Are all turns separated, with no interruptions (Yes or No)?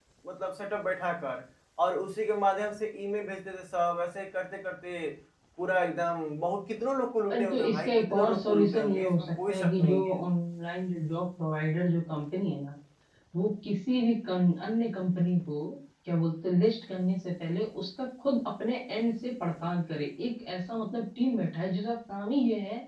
No